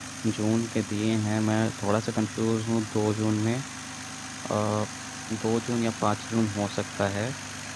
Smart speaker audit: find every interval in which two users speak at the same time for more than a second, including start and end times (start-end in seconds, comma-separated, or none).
none